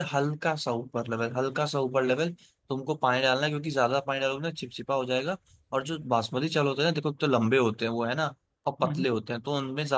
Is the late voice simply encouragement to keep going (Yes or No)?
Yes